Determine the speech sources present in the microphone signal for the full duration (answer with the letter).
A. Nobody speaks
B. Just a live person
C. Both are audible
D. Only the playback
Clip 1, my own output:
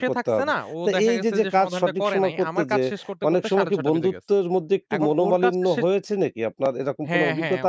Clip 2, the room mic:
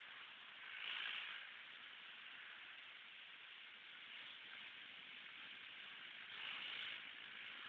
A